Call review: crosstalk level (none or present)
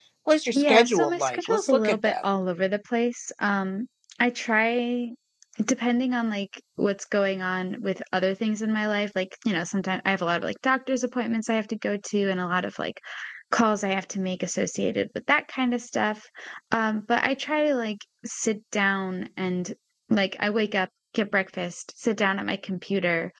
present